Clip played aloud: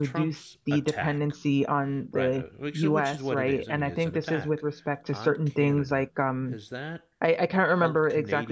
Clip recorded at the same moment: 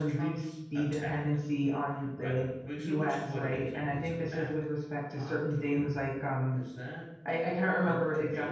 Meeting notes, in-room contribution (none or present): none